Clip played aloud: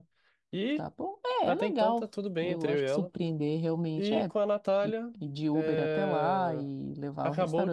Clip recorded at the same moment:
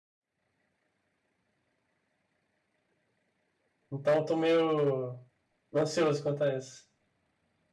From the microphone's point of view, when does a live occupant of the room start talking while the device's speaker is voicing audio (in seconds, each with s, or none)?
3.9 s